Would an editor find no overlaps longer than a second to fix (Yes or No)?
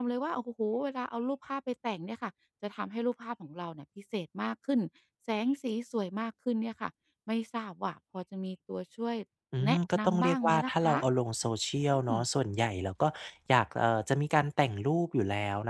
No